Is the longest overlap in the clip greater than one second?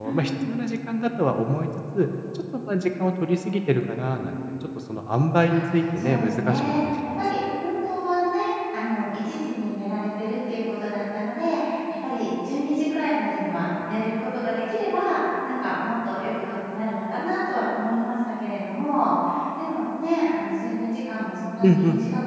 Yes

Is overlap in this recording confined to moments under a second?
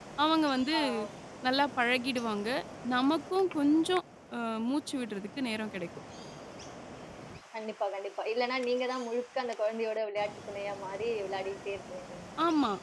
Yes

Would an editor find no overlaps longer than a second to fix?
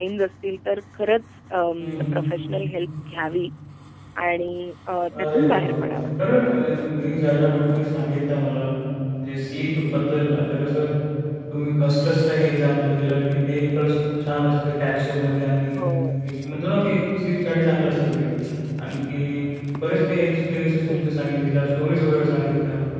No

